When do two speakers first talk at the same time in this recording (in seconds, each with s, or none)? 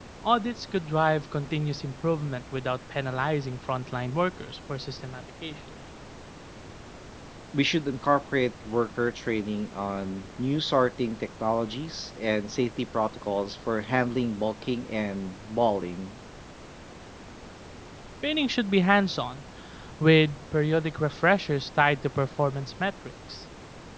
none